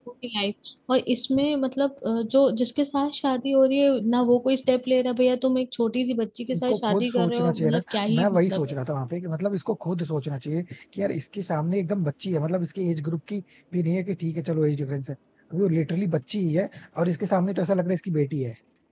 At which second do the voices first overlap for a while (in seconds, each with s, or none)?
6.5 s